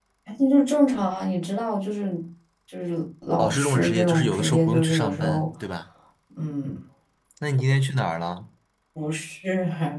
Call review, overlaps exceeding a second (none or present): present